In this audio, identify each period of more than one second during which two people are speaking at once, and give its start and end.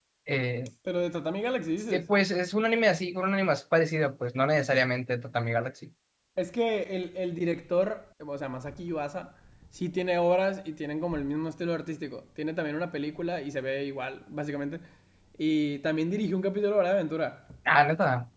none

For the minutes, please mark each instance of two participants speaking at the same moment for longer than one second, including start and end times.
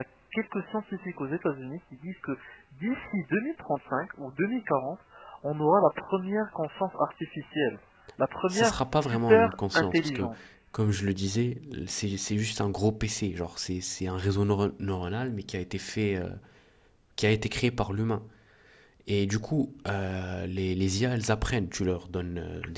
8.5-10.3

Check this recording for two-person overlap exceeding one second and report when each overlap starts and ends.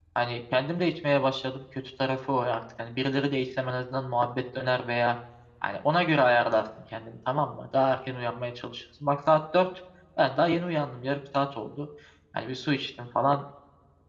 none

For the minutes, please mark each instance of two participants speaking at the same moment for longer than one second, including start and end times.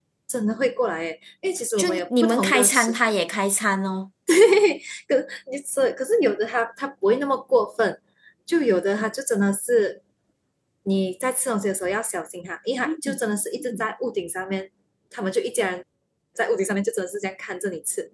1.8-3.1

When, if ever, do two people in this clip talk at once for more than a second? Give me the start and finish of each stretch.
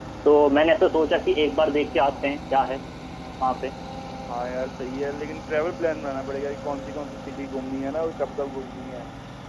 none

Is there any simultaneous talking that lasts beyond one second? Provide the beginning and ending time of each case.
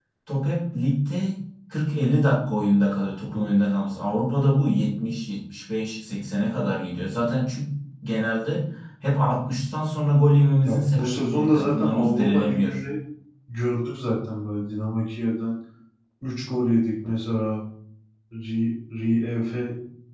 10.6-12.8

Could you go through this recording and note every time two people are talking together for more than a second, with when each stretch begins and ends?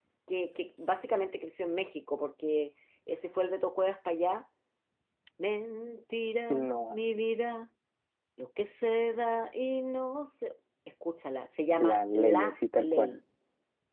11.8-13.1

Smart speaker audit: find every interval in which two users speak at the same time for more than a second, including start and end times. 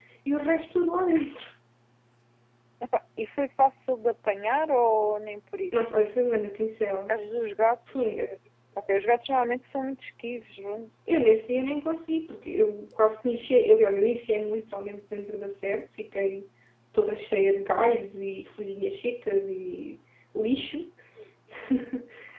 none

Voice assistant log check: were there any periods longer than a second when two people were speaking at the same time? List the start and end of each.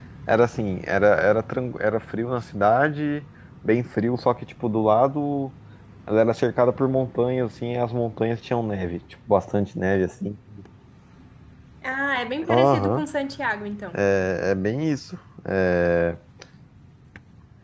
none

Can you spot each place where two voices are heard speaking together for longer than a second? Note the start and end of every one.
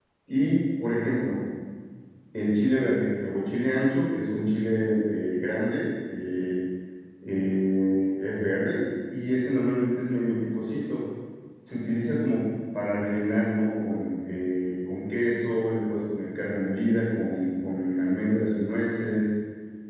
none

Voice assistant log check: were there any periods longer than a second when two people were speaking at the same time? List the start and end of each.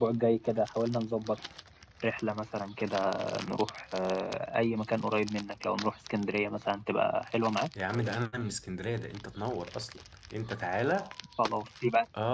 none

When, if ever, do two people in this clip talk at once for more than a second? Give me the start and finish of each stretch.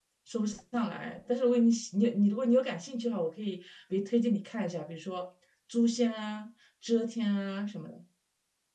none

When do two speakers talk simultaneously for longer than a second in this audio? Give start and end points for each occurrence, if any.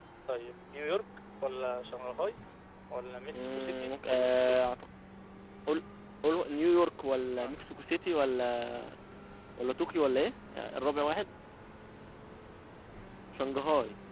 3.3-4.6

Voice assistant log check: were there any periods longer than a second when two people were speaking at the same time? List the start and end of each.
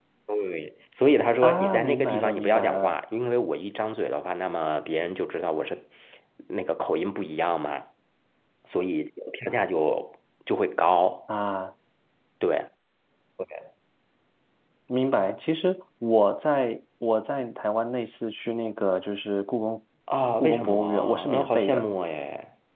1.4-3.0, 20.4-21.9

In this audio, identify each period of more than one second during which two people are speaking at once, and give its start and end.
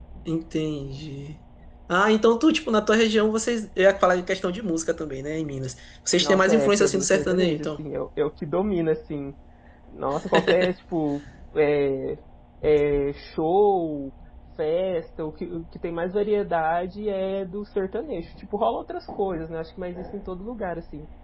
6.2-7.8

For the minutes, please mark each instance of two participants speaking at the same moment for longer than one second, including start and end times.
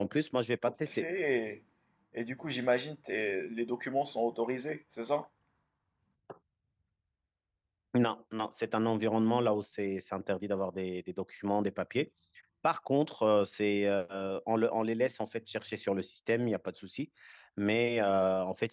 none

